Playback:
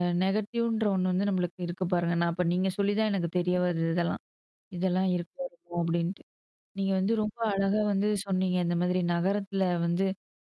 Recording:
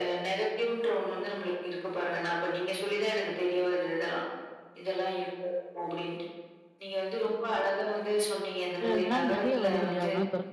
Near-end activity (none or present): present